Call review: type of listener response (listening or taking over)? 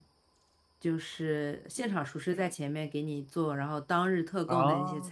listening